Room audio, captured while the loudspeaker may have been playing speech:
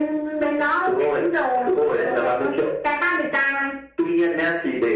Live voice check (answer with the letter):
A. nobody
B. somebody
A